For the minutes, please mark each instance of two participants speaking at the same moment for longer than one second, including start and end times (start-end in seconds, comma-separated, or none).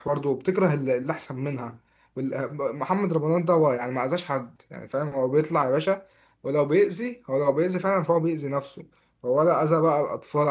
none